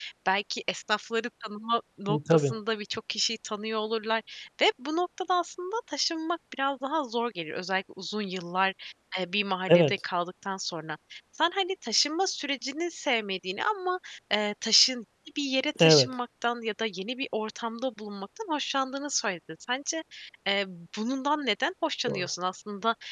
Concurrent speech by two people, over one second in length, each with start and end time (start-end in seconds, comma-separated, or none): none